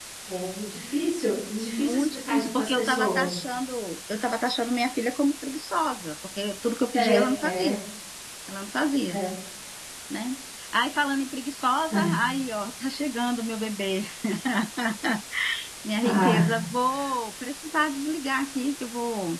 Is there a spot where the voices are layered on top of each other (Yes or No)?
Yes